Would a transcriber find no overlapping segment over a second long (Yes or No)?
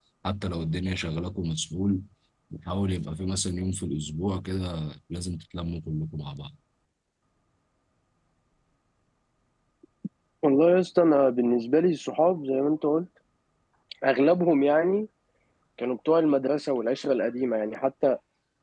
Yes